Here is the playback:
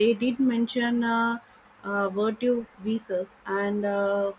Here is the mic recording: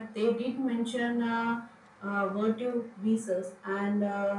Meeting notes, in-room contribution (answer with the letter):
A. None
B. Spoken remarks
A